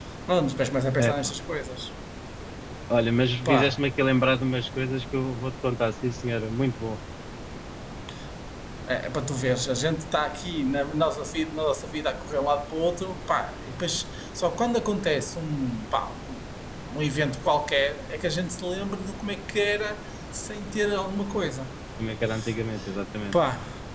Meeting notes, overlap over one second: none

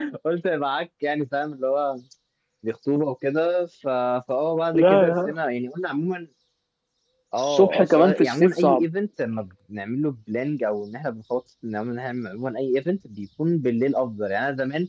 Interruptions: present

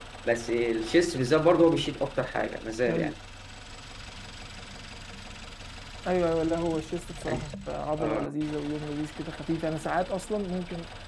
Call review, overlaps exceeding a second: none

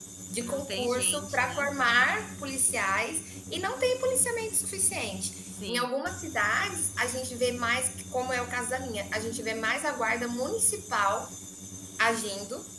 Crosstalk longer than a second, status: present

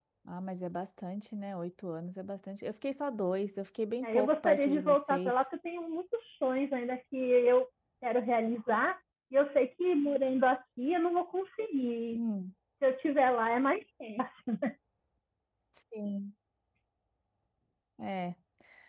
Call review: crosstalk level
present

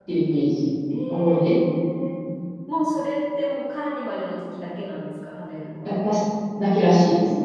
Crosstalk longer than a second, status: none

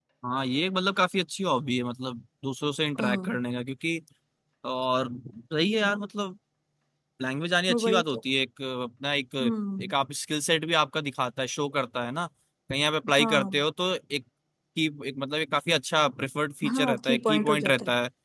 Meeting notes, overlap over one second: present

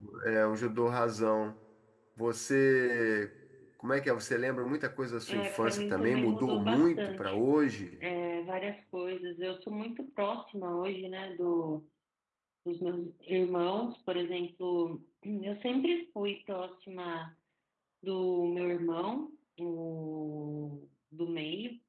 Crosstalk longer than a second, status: present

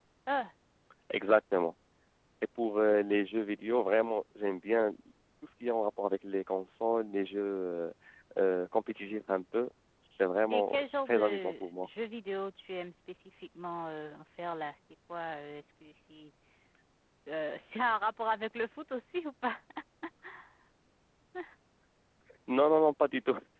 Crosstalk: present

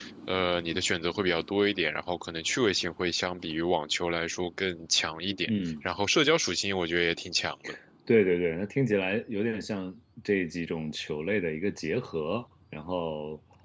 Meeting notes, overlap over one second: none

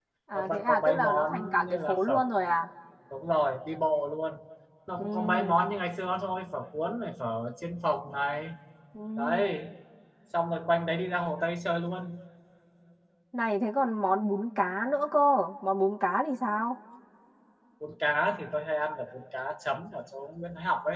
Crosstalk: present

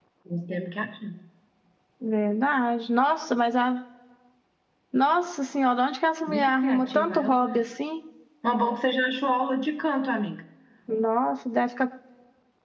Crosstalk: present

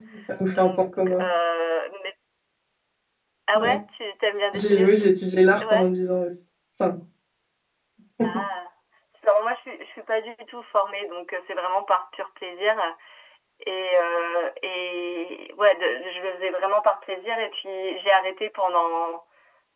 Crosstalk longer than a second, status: none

